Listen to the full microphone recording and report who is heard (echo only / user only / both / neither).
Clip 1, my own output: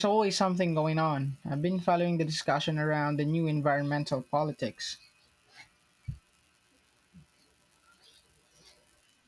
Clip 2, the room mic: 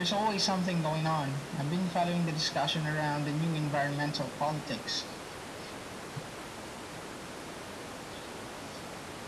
echo only